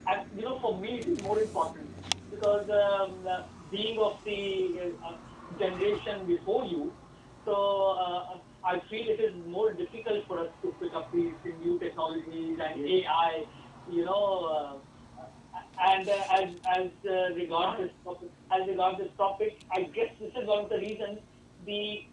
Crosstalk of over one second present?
No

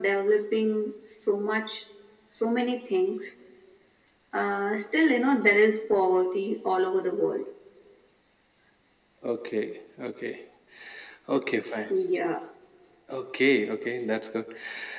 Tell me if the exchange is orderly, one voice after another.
Yes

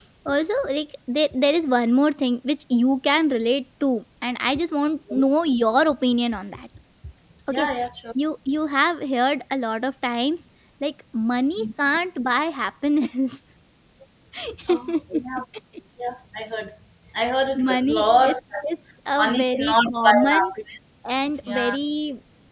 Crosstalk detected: Yes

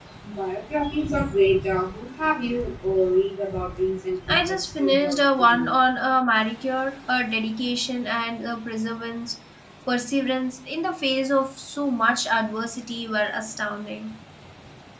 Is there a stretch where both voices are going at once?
Yes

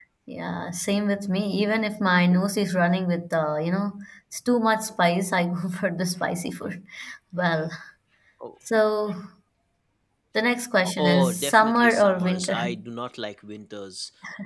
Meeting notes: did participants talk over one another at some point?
Yes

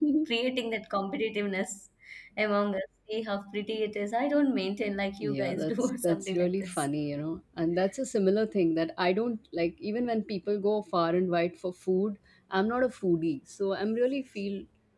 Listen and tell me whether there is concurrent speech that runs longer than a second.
Yes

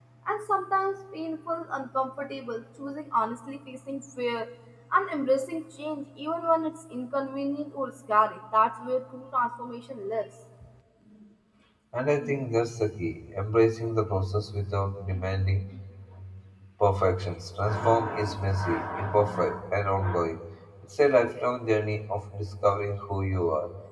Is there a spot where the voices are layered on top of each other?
No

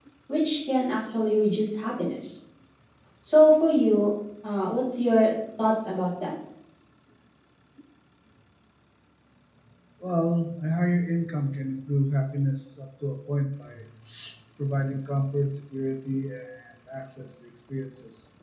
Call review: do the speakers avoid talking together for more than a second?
Yes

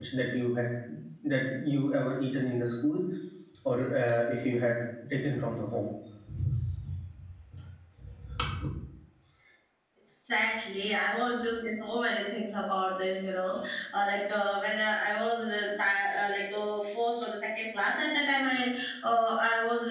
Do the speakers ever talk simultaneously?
No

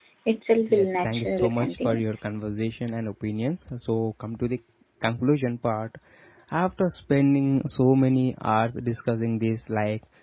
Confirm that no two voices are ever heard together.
No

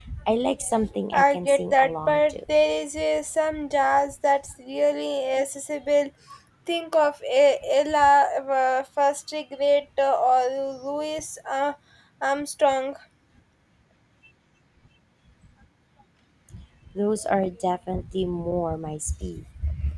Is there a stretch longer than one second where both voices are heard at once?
Yes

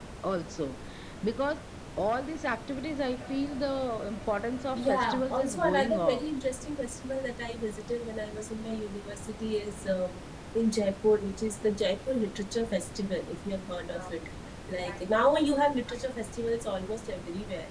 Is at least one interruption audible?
Yes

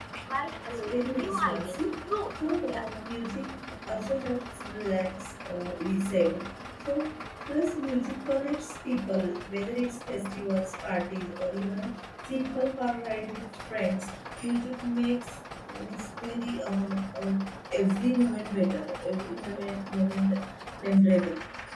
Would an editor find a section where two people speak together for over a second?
Yes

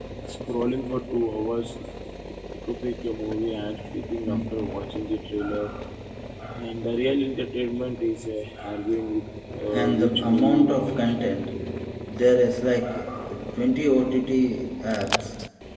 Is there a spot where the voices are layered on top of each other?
Yes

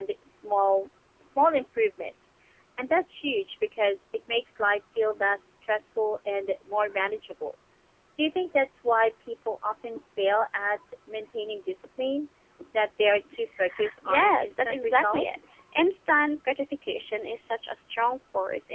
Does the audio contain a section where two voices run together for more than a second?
Yes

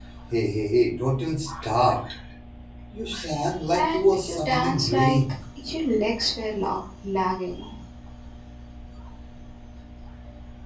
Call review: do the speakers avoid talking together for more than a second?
No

